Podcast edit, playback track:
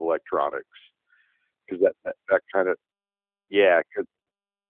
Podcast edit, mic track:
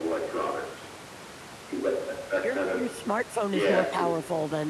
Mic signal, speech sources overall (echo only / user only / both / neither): both